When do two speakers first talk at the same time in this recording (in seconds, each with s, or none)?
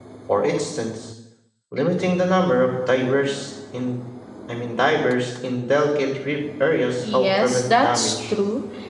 7.0 s